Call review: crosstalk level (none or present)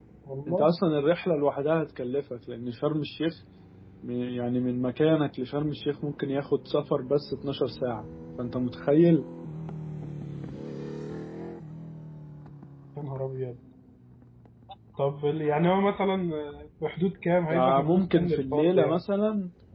present